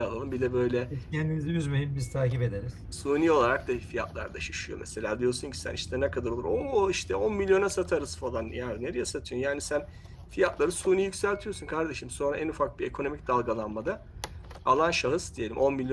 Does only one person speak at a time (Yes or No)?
Yes